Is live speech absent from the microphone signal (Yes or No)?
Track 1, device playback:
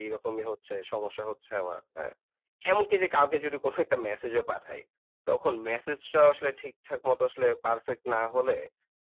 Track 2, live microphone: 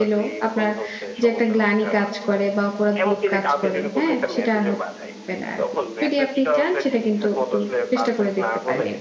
No